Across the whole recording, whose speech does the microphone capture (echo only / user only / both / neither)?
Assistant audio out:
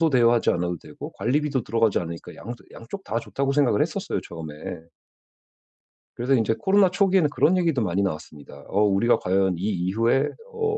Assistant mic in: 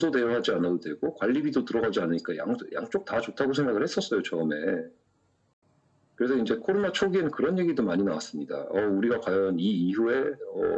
echo only